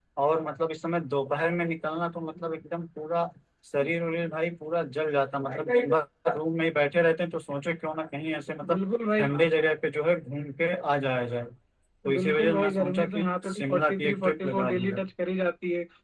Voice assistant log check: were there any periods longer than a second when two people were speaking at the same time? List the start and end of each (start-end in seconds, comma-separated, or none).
12.1-15.0